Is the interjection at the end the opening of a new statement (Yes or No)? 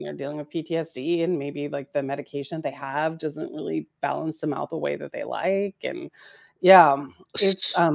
No